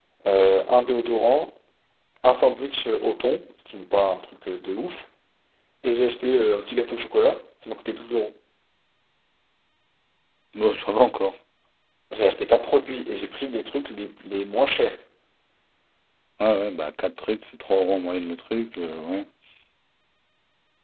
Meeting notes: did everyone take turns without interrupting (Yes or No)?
Yes